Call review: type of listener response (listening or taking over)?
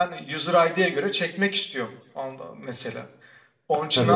taking over